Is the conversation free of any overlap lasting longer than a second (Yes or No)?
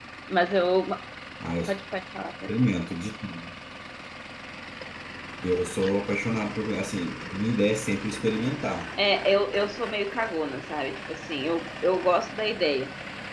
Yes